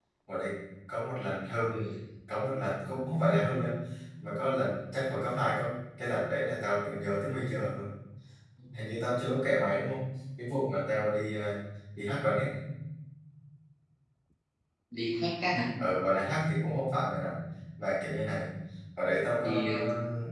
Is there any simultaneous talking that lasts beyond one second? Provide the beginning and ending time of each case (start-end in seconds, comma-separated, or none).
none